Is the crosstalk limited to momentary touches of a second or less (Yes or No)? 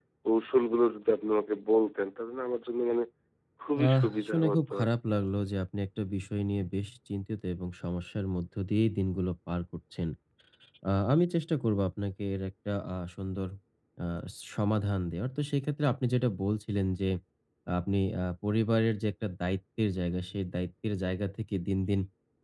No